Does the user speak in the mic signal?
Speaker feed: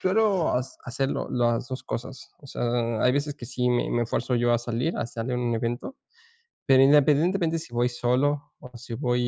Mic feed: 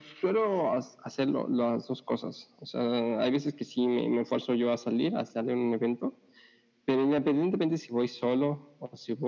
No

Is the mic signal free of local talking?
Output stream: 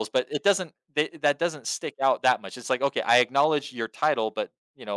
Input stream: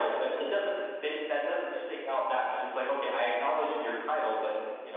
Yes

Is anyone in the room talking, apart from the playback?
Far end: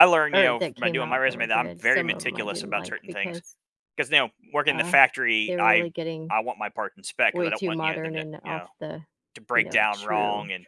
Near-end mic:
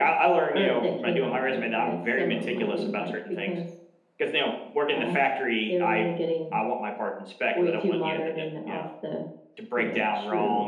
No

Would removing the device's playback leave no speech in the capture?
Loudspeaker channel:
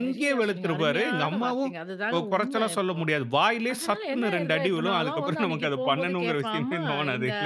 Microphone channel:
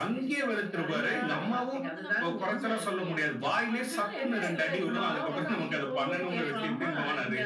No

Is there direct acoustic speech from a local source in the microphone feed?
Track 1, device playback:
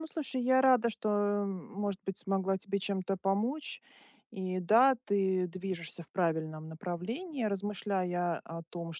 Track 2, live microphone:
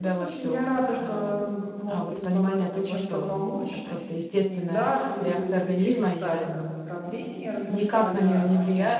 Yes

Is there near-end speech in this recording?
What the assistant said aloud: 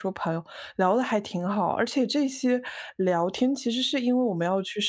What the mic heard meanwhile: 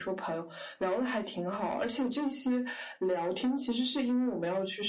No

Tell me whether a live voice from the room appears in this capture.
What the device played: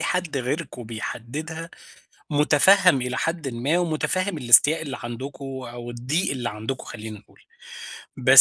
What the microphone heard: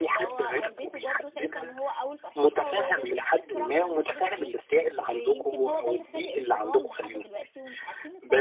Yes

